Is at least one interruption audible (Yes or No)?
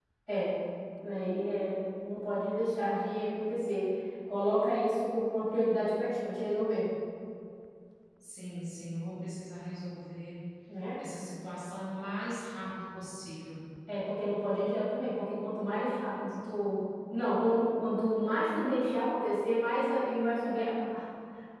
No